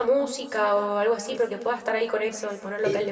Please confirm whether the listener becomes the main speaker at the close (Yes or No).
Yes